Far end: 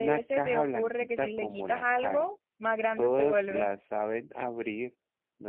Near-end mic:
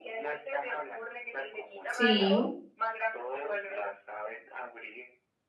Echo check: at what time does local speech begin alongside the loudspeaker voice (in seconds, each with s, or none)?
1.9 s